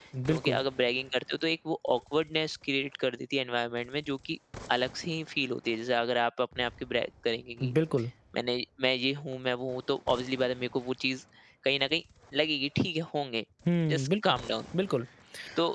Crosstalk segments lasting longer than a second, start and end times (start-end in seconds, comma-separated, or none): none